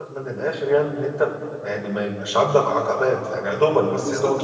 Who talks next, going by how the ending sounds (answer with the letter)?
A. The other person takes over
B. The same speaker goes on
A